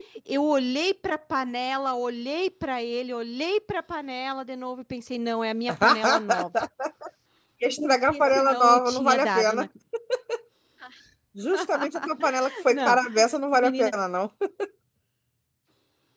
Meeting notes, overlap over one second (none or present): present